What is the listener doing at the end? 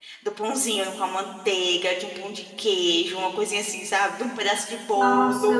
taking over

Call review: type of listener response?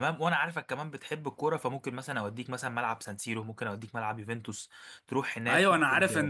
taking over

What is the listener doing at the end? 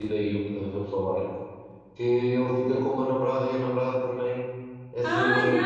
taking over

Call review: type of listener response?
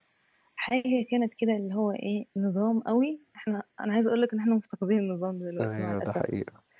taking over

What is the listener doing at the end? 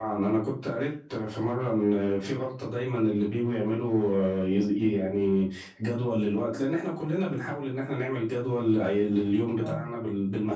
listening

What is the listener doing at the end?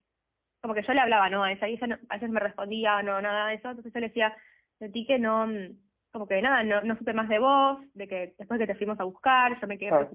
taking over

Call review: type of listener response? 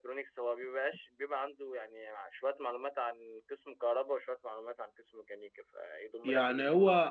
taking over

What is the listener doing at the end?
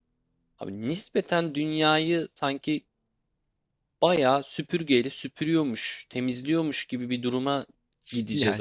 taking over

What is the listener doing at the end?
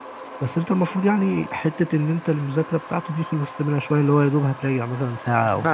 taking over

